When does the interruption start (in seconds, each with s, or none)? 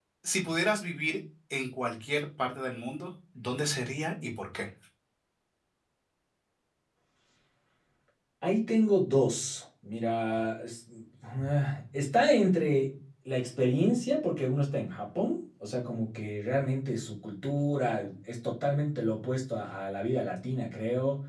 none